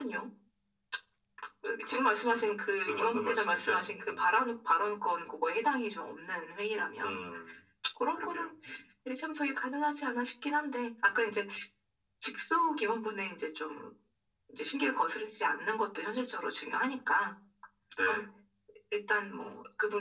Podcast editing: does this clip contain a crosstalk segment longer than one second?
Yes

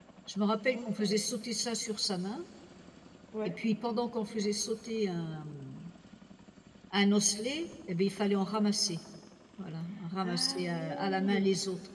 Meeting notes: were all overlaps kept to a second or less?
No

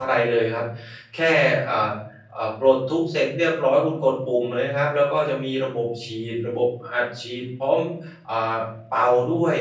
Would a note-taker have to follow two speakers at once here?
No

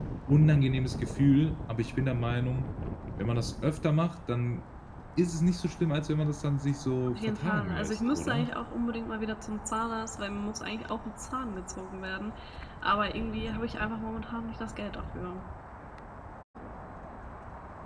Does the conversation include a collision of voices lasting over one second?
Yes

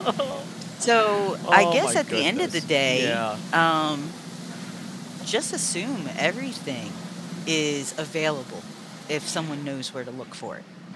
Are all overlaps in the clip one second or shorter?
No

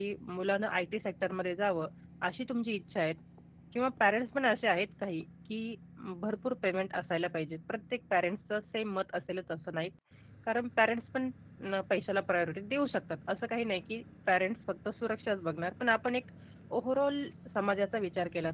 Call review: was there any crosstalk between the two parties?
No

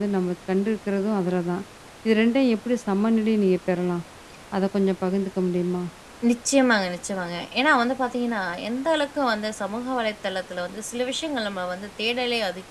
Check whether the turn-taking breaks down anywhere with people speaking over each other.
No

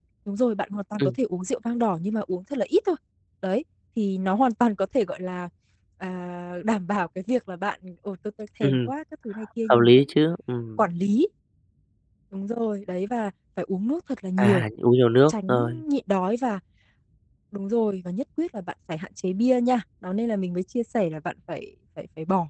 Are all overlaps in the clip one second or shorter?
Yes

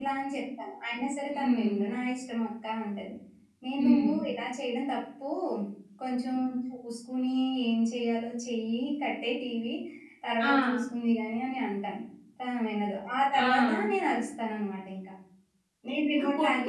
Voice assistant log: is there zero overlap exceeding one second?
Yes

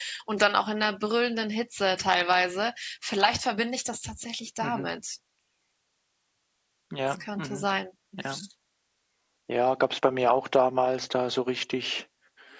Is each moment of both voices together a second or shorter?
Yes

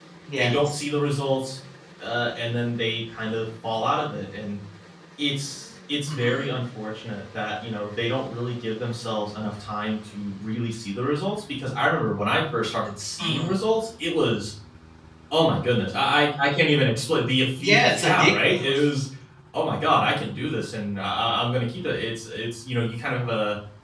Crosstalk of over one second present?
Yes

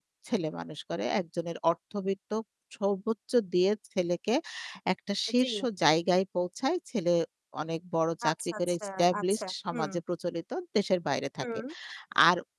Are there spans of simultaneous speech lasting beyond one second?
Yes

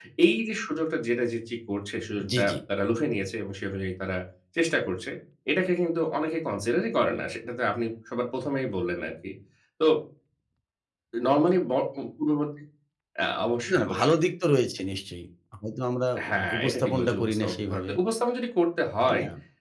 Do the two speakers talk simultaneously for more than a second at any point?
Yes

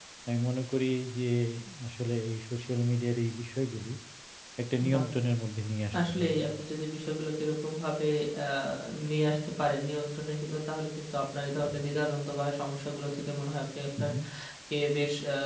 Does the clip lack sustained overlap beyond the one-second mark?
Yes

